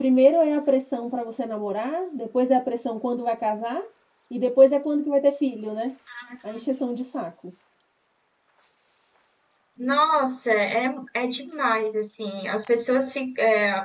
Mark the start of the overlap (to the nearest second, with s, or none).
none